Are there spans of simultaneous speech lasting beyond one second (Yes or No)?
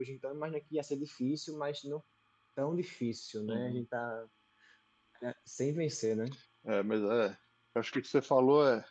No